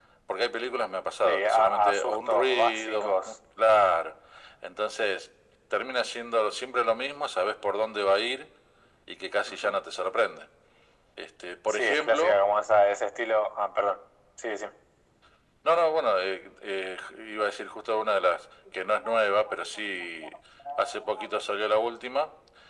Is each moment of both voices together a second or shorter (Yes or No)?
No